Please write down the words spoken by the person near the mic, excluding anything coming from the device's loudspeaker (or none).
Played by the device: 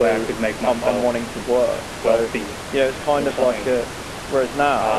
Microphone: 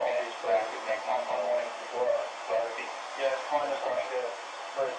none